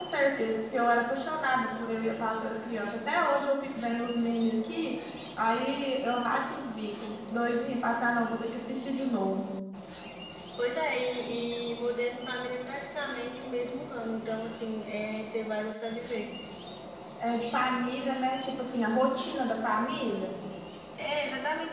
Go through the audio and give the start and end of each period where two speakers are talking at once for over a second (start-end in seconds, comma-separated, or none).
none